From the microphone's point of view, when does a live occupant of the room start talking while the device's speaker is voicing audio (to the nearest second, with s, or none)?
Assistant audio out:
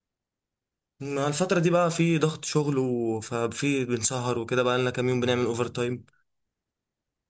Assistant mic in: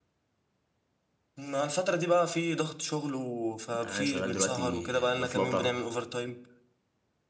4 s